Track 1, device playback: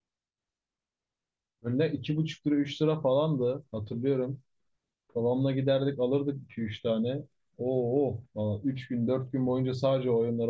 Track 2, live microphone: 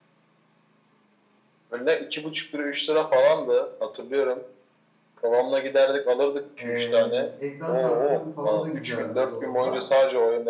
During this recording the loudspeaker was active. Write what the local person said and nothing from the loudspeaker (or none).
Ee, ekran kartım falan da güzeldi o zamanlar.